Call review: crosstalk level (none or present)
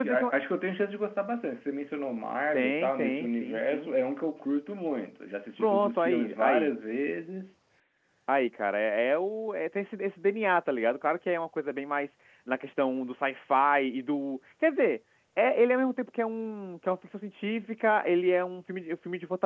present